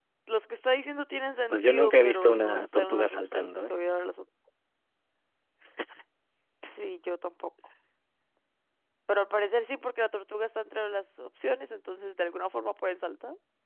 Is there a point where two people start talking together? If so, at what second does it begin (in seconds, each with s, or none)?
1.5 s